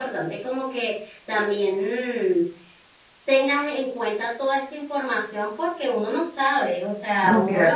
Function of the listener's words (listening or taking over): taking over